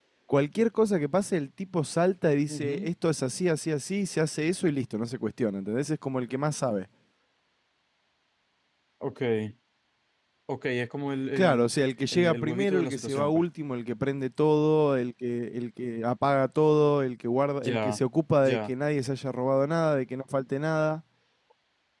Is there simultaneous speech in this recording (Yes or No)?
Yes